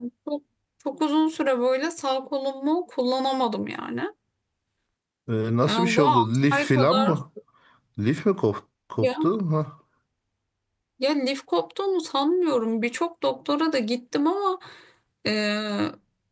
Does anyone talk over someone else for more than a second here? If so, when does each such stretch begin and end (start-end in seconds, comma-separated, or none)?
5.6-7.1